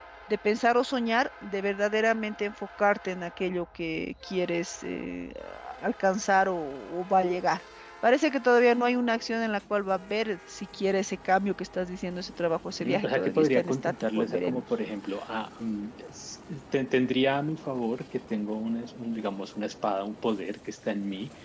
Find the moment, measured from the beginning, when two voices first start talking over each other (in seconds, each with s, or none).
12.8 s